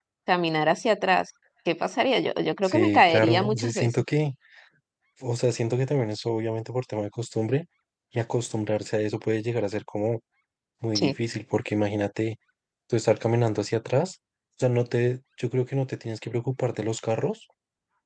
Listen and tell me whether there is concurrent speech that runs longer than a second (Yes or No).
Yes